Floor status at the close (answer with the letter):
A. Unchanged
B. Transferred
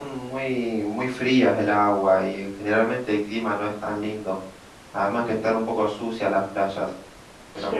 A